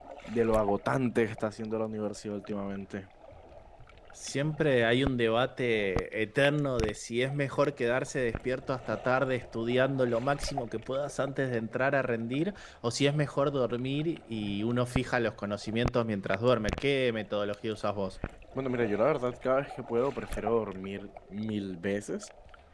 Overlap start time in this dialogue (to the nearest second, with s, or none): none